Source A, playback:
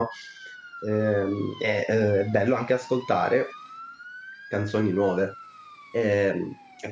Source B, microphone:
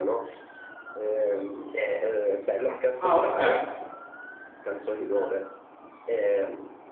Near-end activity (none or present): present